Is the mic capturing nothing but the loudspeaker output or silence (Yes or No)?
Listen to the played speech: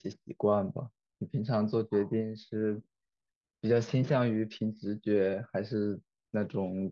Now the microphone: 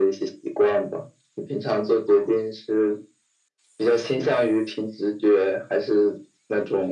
Yes